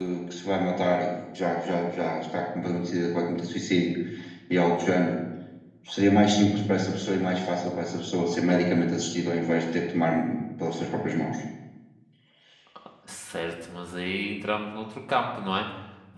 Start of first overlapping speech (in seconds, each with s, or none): none